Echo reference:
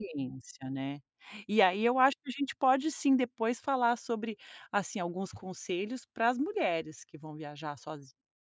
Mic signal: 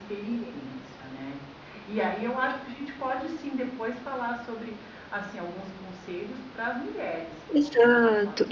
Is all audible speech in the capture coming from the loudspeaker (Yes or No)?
No